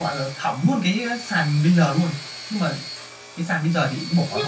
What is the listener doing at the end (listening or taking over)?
taking over